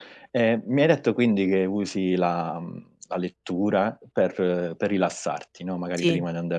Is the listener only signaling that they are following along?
Yes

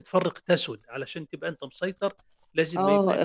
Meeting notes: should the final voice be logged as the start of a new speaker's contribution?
Yes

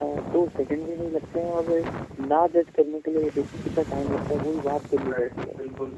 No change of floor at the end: No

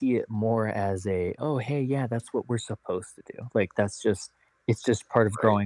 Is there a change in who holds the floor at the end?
No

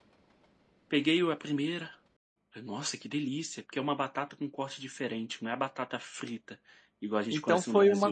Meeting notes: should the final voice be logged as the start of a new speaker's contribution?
Yes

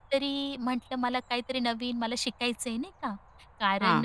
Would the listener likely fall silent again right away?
Yes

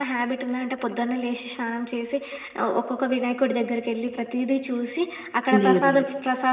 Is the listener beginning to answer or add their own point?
No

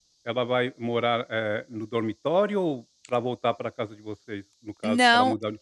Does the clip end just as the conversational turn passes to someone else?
Yes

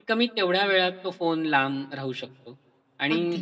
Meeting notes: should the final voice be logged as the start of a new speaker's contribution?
No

